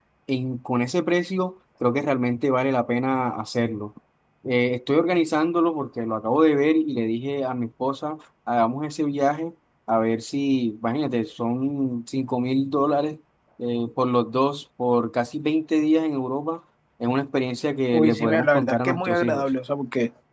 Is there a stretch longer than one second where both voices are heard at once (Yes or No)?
Yes